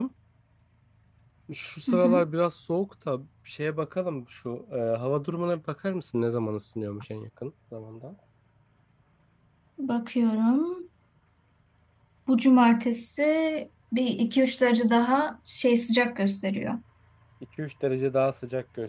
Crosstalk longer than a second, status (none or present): none